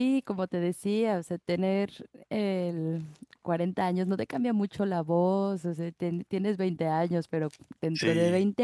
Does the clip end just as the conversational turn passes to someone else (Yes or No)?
No